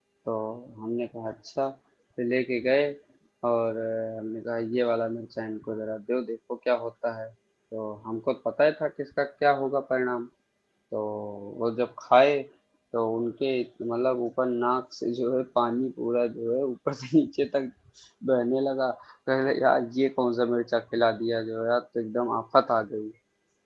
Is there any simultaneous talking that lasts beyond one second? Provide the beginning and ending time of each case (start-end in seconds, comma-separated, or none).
none